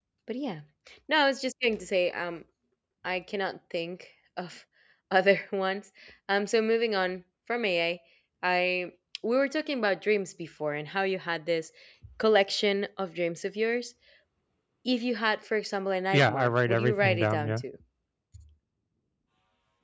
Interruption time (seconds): 16.1 s

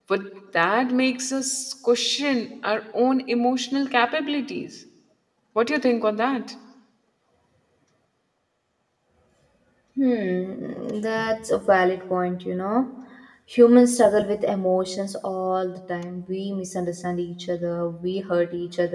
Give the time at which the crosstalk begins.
none

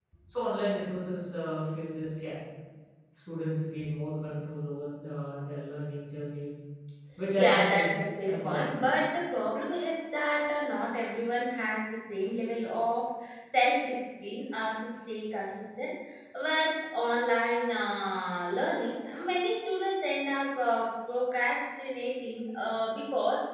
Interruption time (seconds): 7.4 s

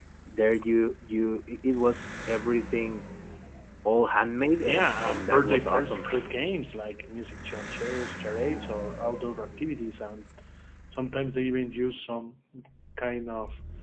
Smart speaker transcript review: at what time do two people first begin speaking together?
4.6 s

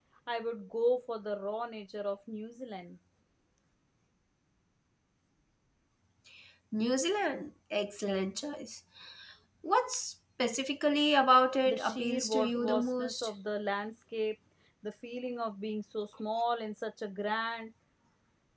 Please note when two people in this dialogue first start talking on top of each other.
11.7 s

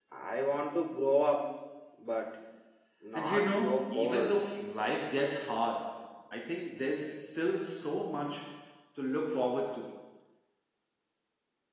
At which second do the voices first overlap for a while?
3.1 s

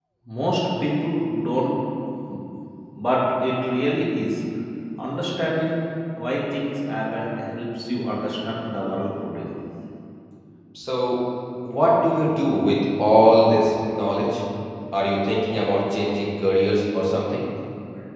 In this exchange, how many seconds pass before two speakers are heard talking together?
none

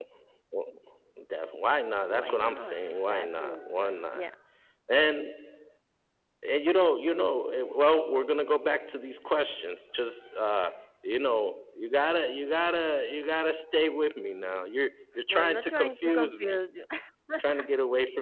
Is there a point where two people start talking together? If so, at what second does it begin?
2.0 s

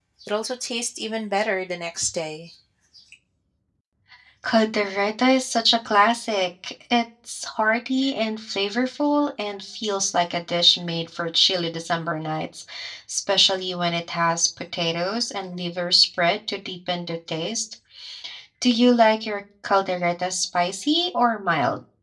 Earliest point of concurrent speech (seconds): none

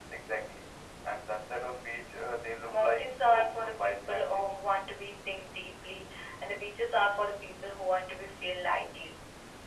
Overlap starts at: 2.6 s

